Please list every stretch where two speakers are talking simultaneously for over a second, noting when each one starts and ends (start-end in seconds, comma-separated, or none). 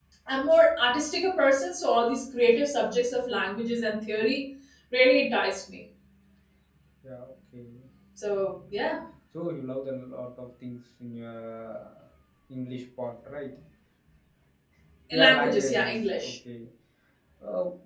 15.1-16.3